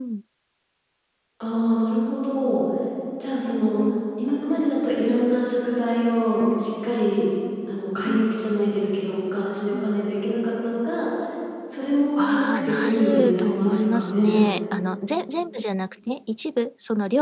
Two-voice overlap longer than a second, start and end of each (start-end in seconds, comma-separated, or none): 12.2-14.4